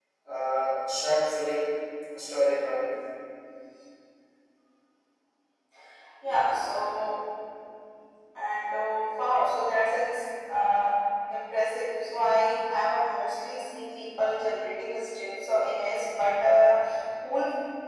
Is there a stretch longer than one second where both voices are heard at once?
No

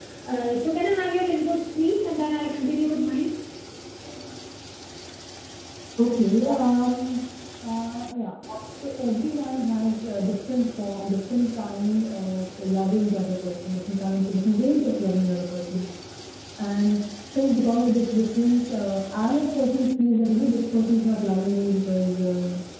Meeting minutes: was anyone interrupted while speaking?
No

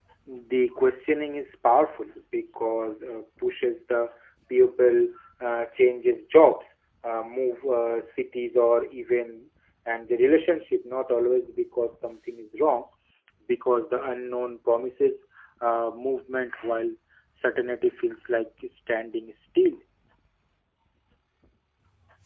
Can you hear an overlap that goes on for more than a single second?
No

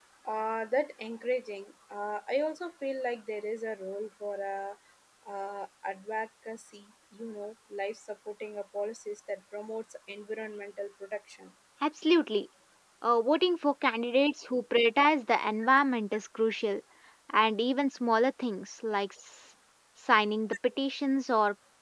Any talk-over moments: No

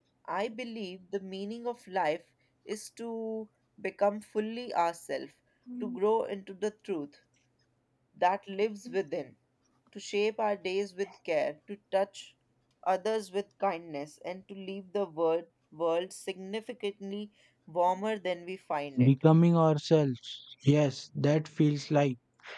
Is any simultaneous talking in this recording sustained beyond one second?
No

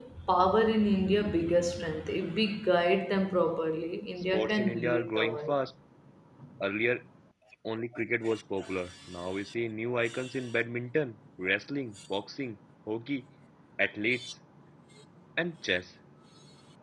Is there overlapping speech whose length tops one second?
Yes, from 4.2 s

